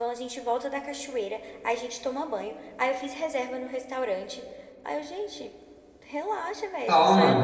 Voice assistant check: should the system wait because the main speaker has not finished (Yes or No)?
Yes